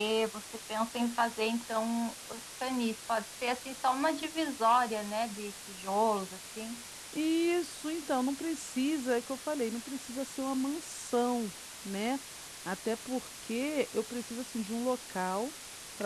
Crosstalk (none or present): none